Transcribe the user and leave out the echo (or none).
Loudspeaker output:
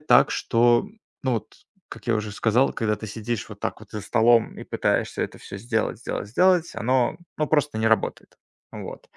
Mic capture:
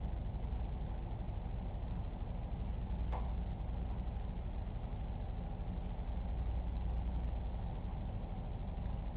none